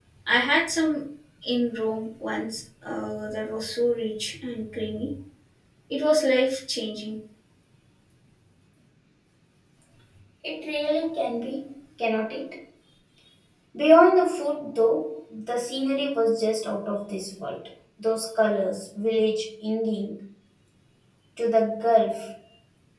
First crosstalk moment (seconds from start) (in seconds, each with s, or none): none